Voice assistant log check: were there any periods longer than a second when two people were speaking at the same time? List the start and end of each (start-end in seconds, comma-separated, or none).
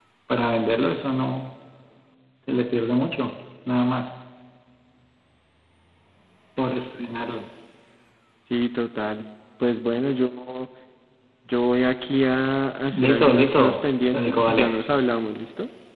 12.9-14.7